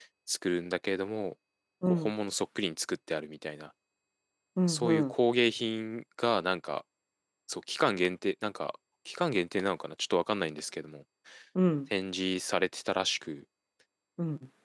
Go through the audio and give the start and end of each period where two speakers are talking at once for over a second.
none

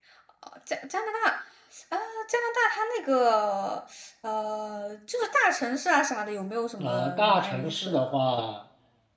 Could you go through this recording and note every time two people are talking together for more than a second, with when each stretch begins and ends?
6.8-8.2

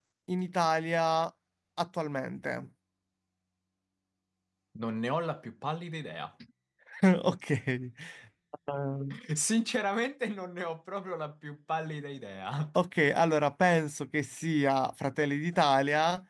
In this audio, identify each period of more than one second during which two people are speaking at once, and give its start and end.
none

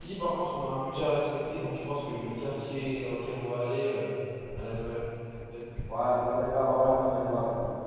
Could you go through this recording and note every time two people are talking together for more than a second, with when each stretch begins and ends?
none

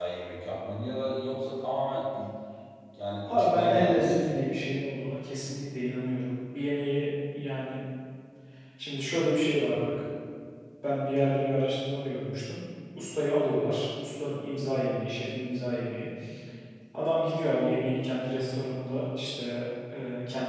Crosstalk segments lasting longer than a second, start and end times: 3.3-4.6

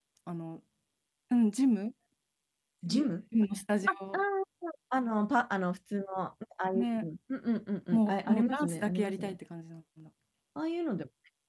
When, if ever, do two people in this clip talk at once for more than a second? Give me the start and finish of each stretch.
7.9-9.4

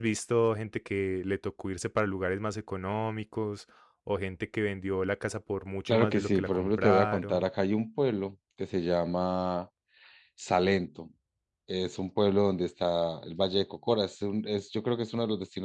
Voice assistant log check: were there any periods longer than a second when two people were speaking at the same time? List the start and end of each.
5.9-7.5

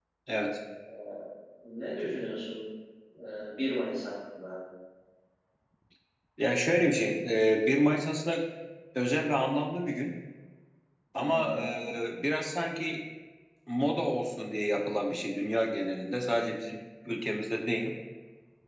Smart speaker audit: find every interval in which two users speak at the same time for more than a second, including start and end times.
none

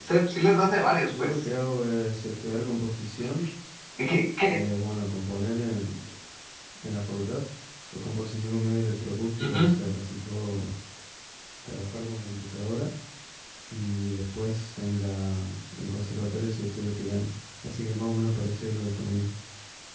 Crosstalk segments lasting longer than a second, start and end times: none

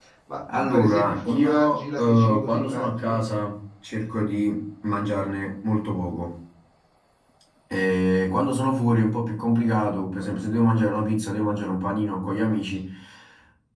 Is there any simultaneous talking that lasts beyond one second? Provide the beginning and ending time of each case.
0.5-3.2

